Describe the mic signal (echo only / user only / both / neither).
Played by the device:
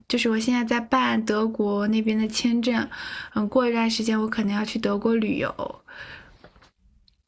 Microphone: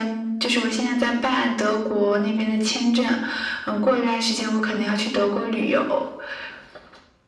echo only